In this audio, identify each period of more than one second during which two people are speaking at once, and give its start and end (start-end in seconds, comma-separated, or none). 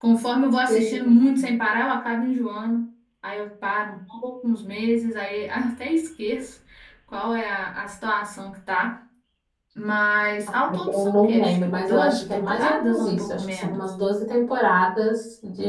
10.9-13.8